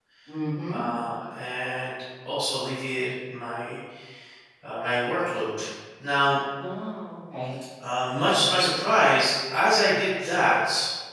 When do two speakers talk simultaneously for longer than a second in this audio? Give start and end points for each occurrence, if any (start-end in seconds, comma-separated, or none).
none